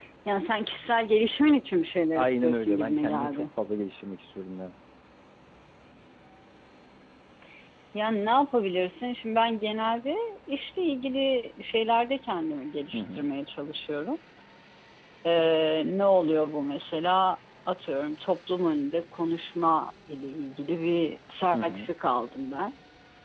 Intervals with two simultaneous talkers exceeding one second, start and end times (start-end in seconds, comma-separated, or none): 2.1-3.5